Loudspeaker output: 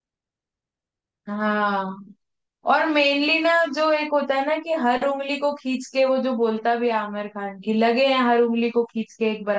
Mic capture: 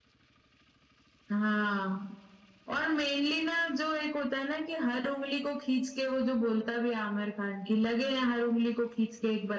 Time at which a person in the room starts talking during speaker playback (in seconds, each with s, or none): none